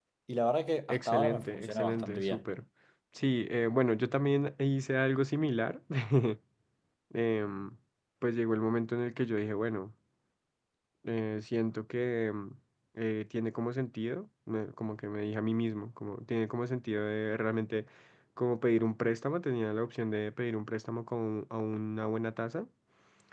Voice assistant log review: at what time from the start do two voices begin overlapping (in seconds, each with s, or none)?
0.9 s